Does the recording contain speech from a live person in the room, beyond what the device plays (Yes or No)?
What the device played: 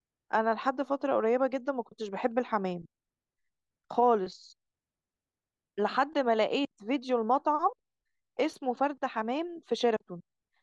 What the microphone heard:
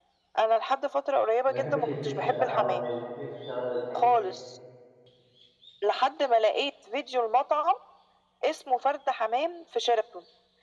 Yes